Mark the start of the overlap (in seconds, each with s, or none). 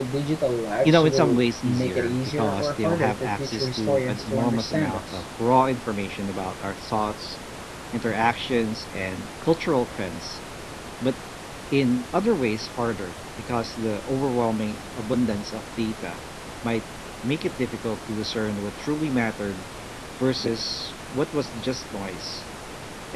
0.8 s